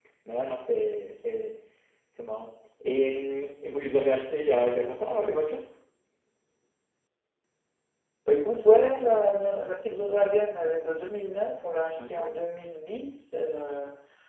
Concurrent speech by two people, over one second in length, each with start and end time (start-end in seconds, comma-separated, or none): none